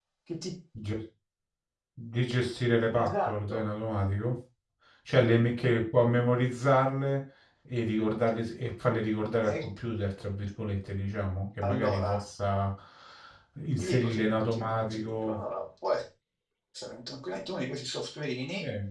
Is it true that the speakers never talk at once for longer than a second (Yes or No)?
No